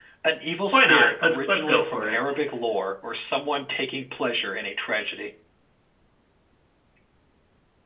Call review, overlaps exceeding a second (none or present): present